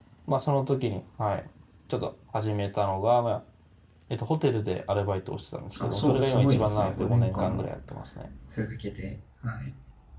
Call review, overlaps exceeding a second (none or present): present